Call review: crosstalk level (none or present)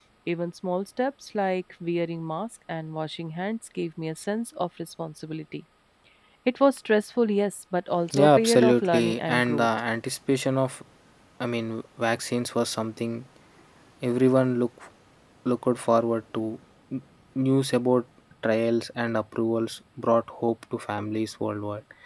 present